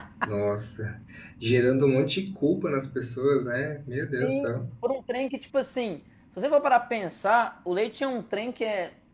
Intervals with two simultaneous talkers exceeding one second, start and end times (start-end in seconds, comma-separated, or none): none